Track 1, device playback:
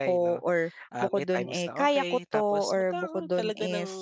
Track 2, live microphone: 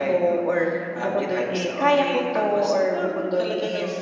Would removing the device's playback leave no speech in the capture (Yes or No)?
Yes